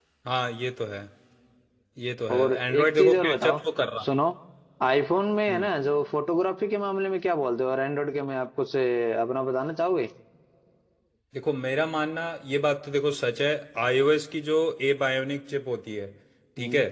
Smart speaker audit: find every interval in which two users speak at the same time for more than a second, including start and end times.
2.3-3.6

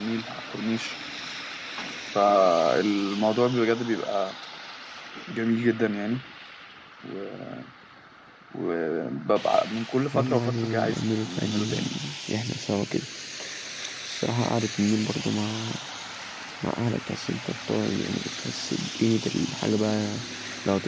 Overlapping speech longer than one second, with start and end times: 10.1-11.8

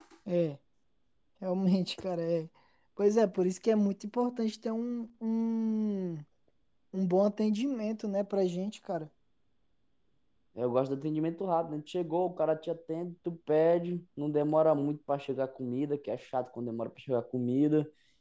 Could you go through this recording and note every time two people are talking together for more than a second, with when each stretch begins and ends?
none

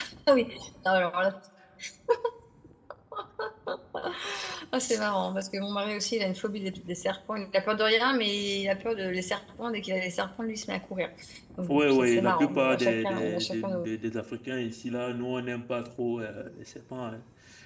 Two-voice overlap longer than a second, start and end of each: 11.7-13.8

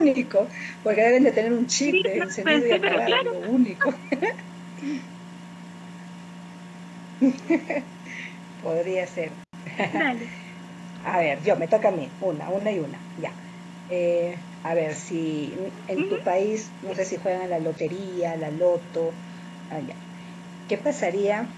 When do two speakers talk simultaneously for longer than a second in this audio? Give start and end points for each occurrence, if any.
1.9-3.3

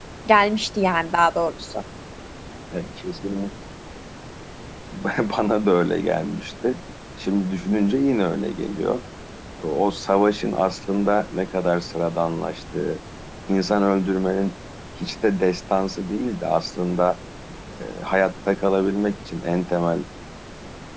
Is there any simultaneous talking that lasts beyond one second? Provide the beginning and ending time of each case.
none

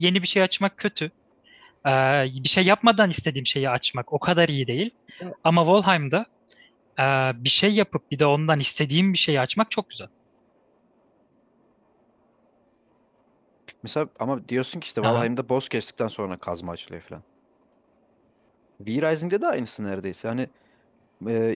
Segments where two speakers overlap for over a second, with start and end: none

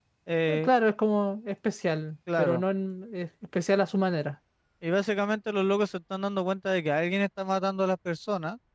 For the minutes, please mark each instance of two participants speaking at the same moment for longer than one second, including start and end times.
none

